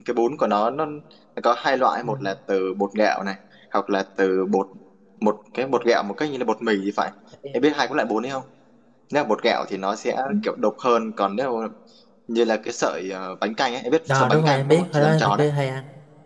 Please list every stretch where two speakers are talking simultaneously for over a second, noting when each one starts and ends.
14.1-15.5

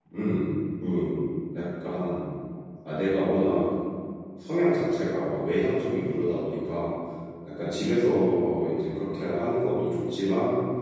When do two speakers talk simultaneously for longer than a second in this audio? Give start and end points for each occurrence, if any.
none

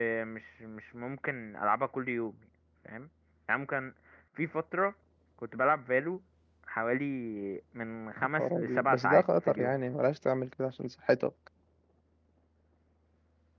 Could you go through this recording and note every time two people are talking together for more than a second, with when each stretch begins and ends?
8.4-9.8

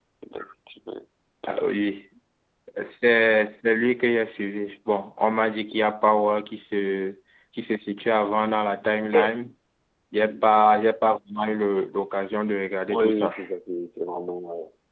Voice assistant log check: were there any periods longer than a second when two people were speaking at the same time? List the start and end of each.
none

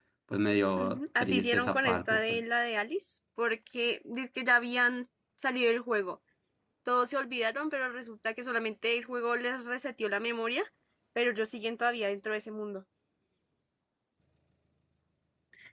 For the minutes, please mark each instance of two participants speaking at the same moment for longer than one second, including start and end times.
0.8-2.4

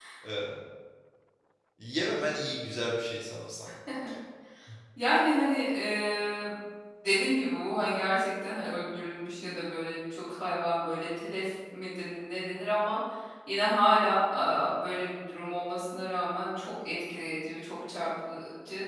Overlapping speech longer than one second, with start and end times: none

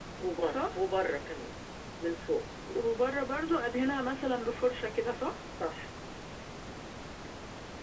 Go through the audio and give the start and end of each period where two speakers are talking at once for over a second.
none

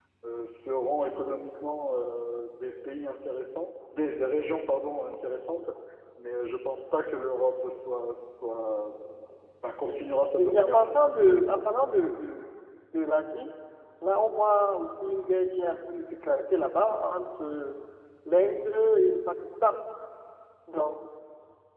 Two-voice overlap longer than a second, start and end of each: 10.4-11.6

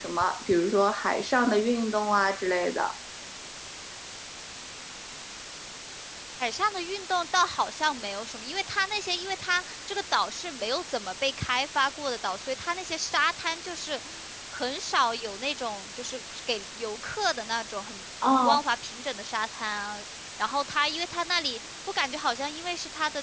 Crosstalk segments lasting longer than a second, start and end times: none

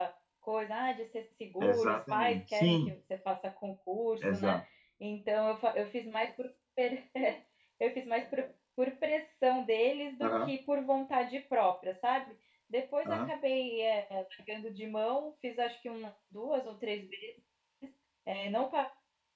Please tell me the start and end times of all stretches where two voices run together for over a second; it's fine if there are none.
1.6-2.9

